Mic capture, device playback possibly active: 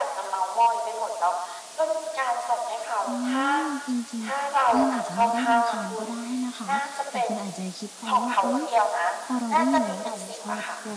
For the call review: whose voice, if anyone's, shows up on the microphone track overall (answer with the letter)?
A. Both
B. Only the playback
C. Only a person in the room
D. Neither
A